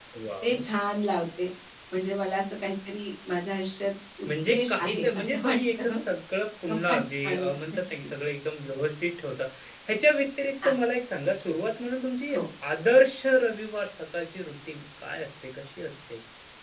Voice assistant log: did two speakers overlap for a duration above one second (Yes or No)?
Yes